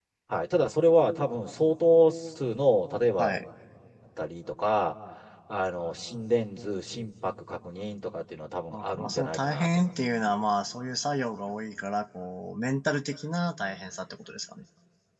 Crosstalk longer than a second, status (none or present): present